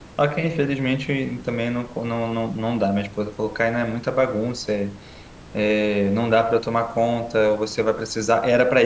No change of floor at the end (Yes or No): Yes